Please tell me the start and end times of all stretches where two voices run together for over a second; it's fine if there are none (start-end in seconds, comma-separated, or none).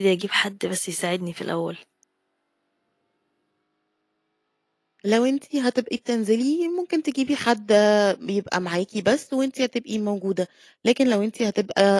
none